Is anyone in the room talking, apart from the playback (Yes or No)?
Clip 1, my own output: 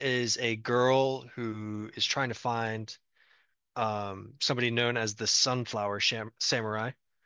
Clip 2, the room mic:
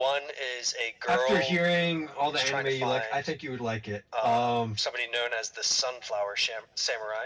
Yes